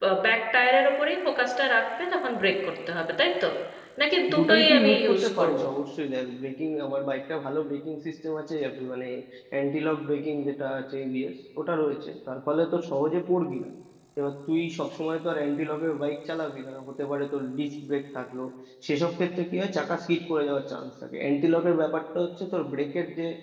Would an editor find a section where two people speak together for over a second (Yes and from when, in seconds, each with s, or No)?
Yes, from 4.3 s